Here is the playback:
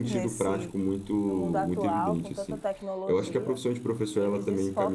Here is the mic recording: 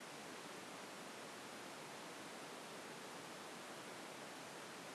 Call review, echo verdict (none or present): none